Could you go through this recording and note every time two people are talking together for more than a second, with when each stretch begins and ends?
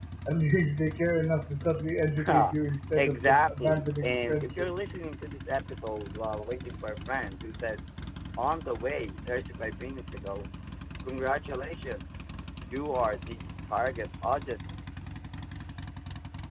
3.0-4.7

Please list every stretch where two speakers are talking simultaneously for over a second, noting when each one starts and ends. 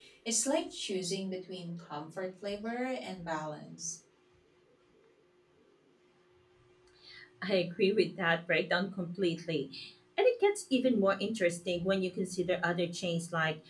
none

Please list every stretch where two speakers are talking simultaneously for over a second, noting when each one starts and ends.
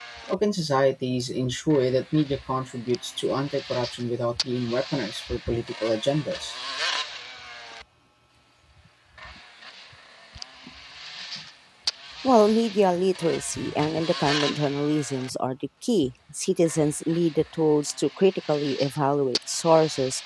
none

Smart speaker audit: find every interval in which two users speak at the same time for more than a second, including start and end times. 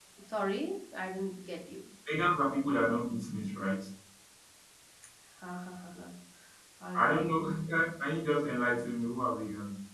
none

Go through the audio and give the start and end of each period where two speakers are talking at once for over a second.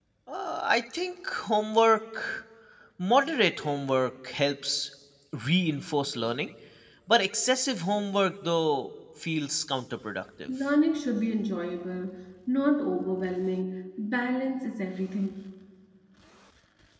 none

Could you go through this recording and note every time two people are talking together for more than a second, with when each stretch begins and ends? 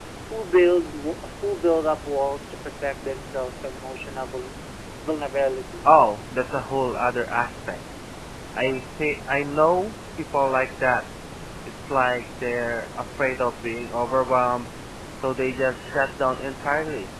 none

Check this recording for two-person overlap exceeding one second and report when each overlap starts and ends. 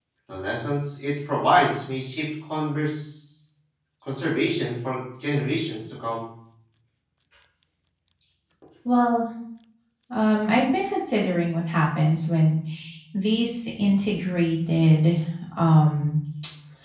none

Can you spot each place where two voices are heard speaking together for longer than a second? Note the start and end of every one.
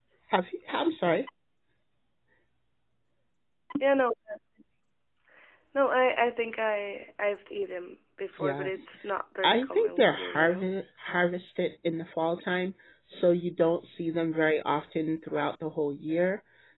9.4-10.7

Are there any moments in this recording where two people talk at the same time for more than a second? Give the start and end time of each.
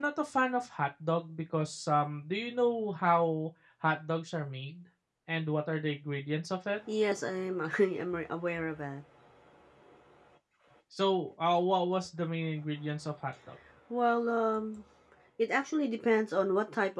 none

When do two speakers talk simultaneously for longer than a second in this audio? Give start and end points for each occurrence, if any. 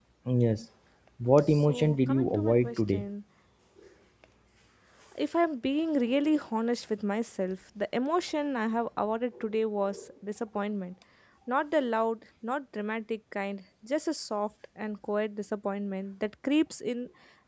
1.5-3.0

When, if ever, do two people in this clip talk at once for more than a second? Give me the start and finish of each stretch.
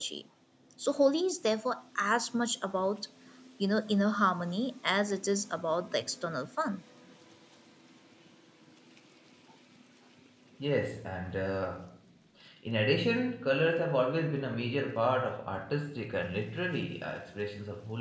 none

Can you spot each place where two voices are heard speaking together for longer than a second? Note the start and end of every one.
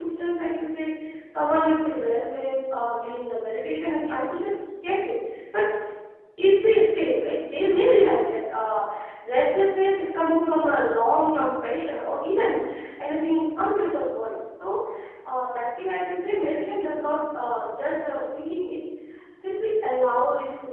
none

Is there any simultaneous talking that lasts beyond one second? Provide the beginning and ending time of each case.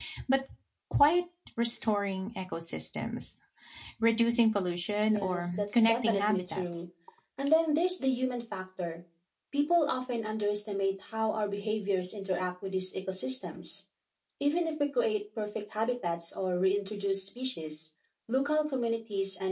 5.0-6.9

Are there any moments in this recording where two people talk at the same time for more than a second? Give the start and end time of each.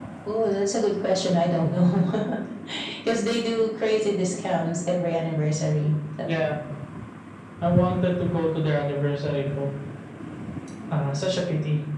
none

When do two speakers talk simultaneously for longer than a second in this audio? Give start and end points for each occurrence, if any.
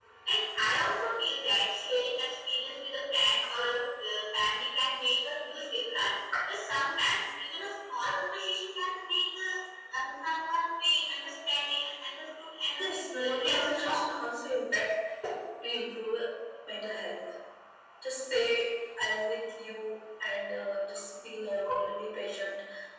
12.8-14.1

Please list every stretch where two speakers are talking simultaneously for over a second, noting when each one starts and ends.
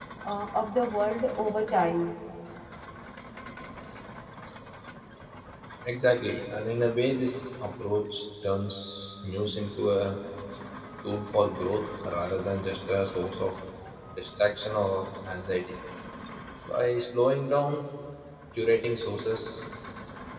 none

